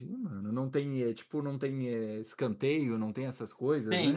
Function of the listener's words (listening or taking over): taking over